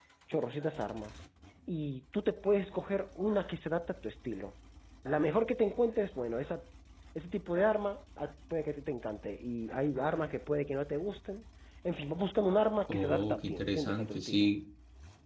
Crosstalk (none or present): present